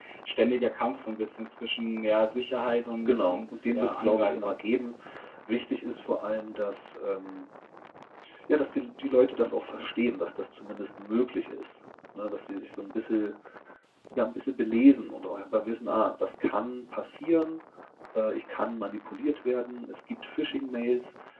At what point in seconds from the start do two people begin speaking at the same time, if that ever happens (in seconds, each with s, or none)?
3.0 s